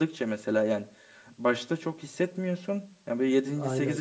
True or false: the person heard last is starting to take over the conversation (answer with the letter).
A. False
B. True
A